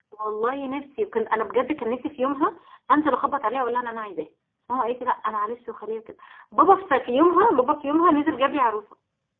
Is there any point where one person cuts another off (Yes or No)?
No